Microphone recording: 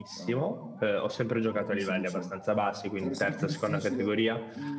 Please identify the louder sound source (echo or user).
user